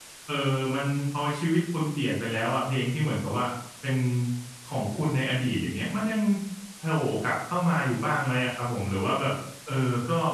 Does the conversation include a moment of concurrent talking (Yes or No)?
No